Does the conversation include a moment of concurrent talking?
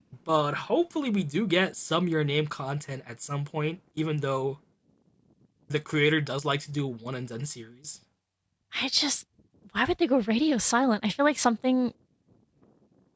No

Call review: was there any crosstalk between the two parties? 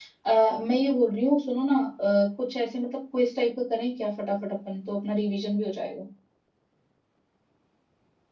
No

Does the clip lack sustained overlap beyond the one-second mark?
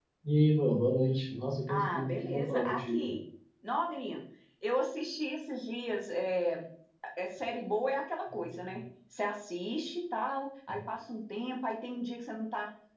No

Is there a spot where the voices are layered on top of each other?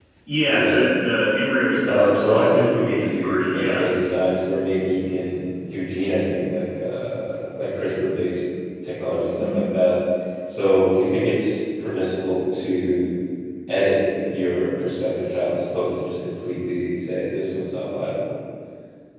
Yes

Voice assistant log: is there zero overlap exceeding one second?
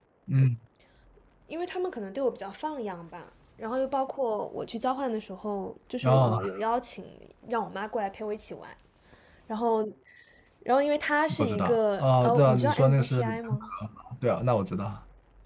No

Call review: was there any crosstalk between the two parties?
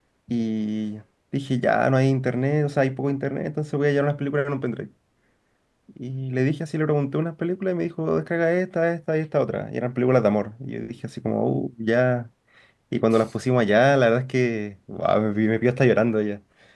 No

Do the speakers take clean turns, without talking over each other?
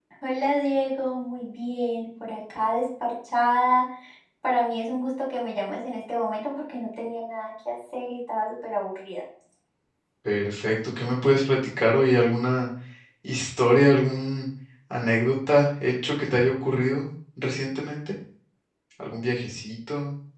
Yes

